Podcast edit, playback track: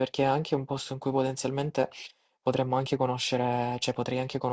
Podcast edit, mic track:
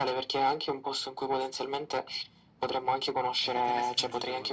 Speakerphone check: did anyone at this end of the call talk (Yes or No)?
Yes